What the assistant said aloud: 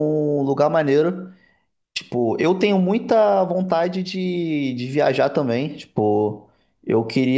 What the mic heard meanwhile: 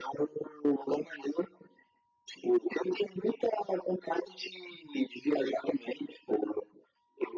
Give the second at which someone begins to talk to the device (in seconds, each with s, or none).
none